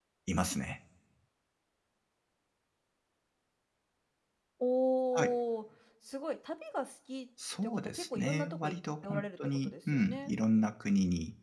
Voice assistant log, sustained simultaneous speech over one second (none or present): present